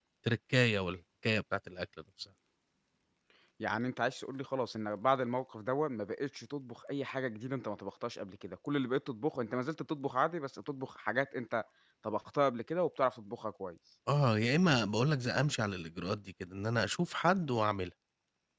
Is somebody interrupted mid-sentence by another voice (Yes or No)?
No